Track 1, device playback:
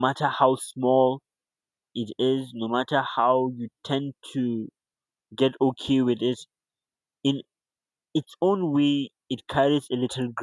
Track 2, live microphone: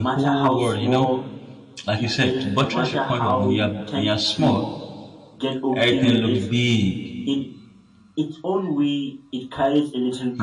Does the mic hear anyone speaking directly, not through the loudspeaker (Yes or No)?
Yes